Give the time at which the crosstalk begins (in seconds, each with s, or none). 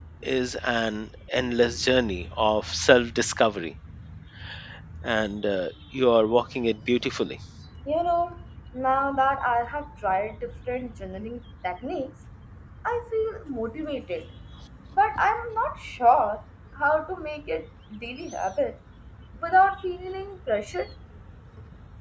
none